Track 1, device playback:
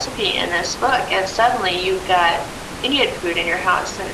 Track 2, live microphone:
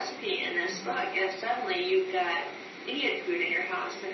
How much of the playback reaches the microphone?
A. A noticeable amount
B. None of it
A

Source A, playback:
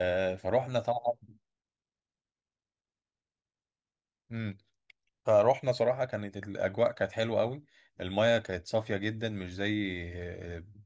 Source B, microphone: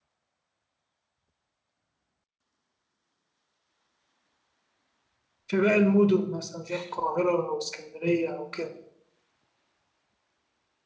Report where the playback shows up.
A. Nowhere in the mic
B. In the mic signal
A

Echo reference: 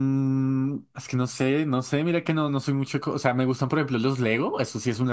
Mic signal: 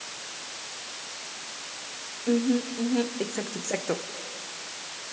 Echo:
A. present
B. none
B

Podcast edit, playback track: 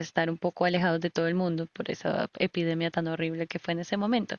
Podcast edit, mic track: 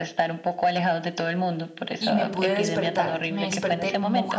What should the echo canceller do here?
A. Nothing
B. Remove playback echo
B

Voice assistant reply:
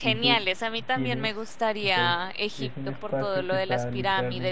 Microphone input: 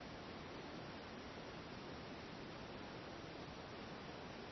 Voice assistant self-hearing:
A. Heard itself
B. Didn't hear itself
B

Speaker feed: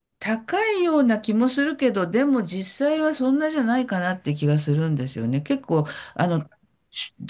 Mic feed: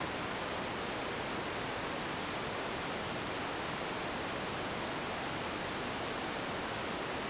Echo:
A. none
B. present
A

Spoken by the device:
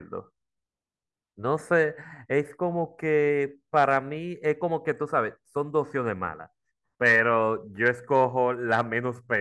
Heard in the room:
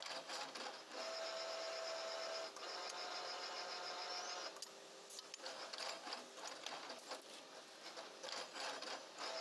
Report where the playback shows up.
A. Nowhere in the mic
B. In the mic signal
A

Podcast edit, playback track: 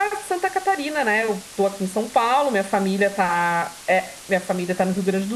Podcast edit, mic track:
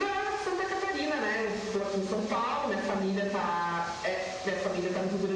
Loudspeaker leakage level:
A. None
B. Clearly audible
B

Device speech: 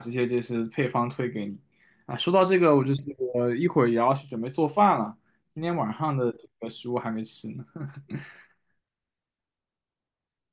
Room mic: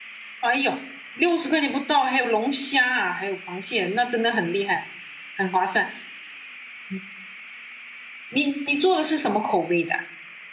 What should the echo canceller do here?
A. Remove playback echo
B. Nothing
B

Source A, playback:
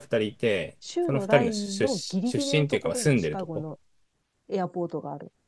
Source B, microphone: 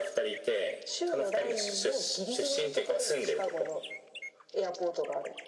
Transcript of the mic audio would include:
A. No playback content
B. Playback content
B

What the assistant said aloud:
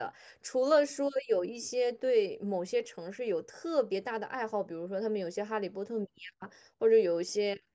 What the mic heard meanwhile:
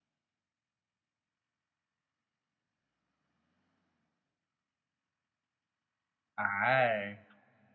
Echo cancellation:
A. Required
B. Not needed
B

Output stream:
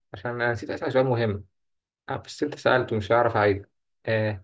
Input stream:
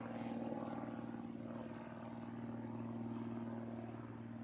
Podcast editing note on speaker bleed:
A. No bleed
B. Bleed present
A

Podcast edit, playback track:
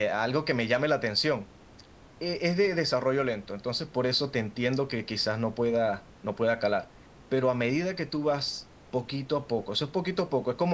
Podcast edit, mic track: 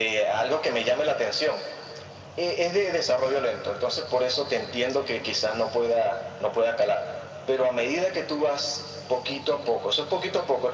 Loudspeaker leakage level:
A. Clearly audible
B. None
A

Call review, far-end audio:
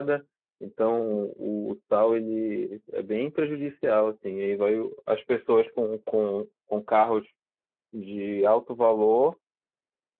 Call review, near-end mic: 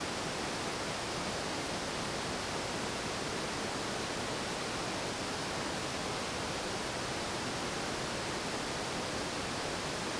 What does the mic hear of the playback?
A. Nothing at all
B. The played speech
A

